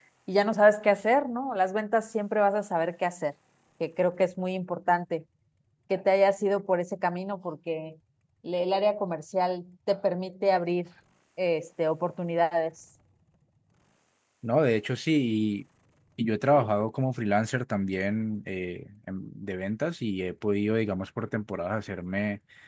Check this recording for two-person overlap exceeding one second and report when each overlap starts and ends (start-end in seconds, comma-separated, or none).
none